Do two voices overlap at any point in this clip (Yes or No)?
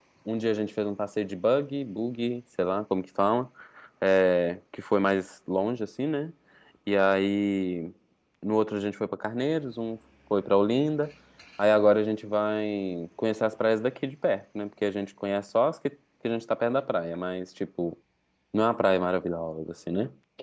No